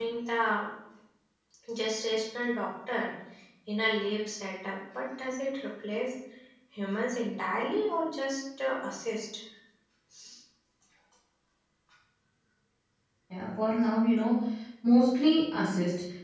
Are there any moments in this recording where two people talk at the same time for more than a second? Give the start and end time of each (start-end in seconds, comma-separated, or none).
none